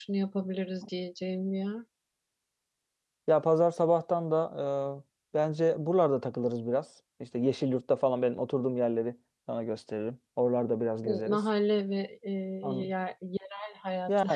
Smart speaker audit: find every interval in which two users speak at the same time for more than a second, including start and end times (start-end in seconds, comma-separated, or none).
none